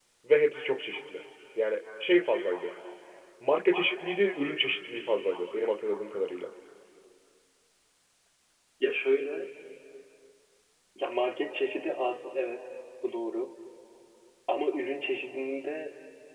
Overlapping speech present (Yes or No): No